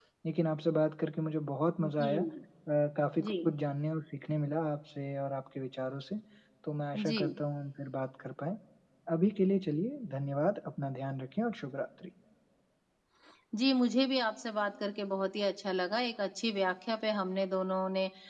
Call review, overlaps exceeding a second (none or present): none